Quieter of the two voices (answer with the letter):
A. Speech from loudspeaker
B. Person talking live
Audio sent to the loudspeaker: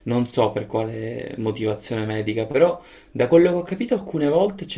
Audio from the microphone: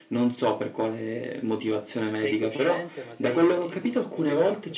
B